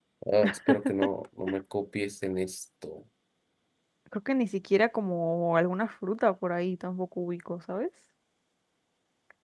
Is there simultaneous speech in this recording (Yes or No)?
No